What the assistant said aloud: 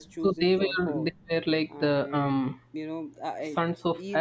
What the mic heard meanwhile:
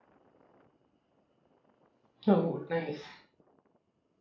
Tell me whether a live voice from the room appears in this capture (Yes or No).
Yes